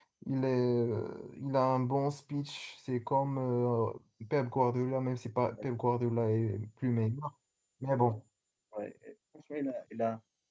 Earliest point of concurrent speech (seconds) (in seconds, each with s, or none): none